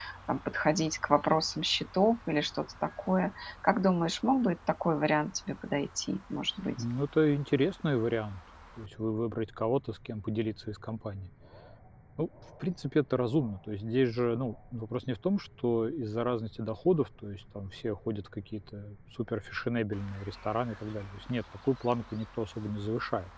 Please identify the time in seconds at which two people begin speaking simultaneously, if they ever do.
none

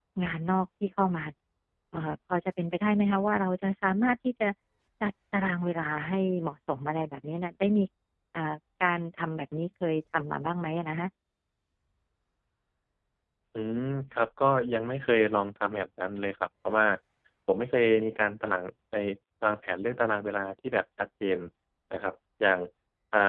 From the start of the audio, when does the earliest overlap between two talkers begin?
none

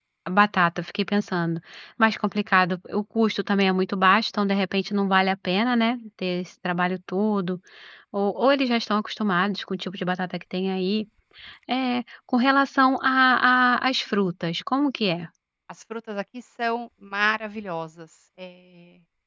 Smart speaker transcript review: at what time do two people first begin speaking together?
none

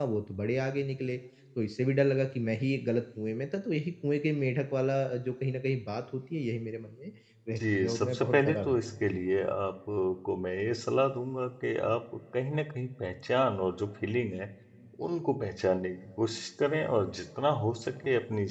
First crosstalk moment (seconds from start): 8 s

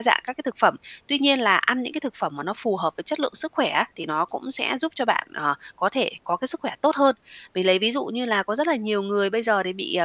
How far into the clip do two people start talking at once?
none

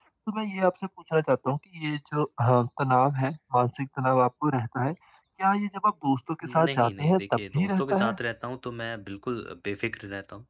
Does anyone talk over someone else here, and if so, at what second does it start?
6 s

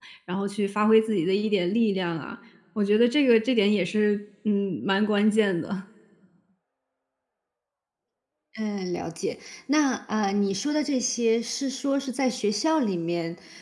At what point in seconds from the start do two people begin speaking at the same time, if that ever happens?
none

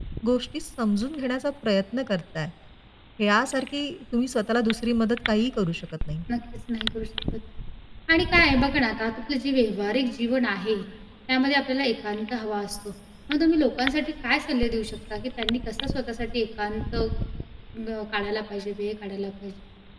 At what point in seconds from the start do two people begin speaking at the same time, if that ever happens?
none

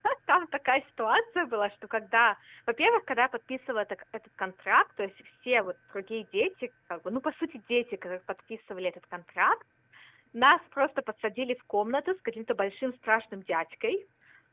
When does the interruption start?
none

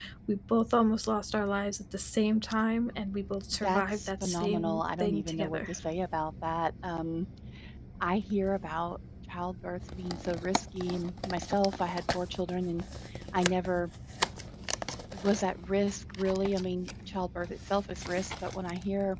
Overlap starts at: 4 s

